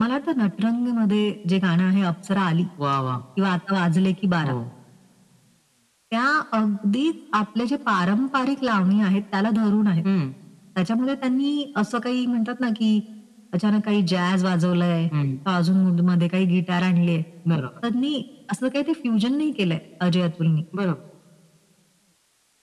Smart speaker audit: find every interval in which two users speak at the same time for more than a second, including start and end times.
none

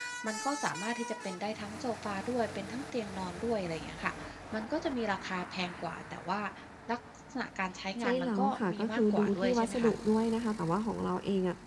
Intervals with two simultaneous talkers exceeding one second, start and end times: 8.0-9.9

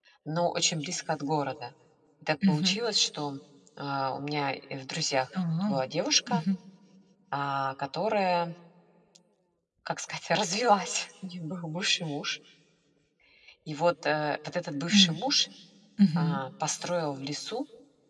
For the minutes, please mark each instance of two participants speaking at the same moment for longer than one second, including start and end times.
none

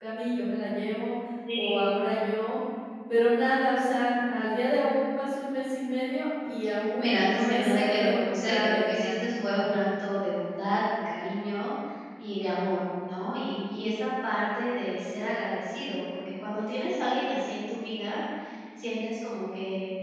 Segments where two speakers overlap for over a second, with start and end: 7.0-9.2

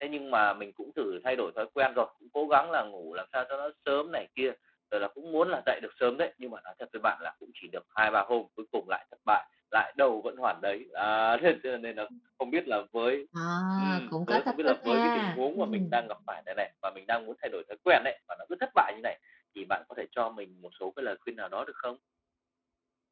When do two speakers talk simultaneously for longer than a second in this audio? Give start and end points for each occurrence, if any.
13.8-15.9

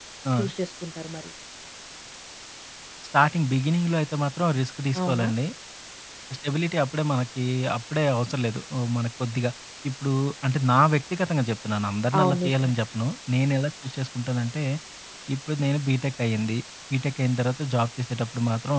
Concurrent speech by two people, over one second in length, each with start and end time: none

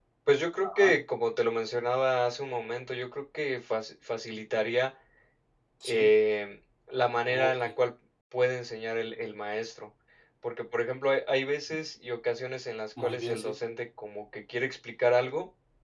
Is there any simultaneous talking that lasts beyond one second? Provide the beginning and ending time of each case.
none

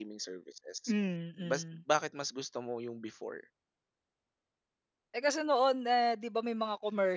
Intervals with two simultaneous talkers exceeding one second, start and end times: none

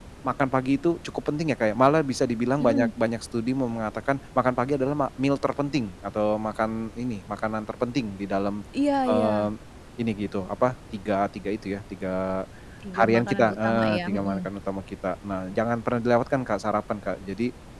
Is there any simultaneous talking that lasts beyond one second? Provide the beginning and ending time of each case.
13.0-14.5

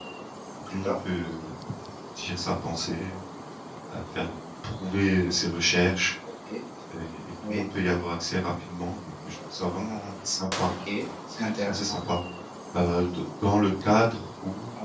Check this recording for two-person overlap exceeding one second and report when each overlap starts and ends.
none

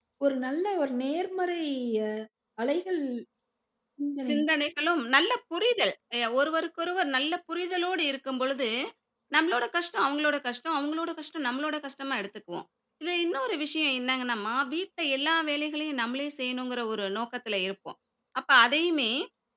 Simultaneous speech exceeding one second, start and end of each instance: none

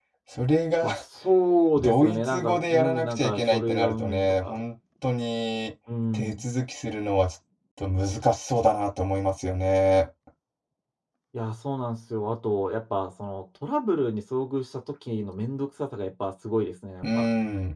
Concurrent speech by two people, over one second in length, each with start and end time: 1.8-4.7

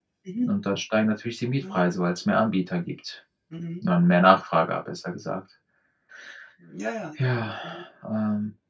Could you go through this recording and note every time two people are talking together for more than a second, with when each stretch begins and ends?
none

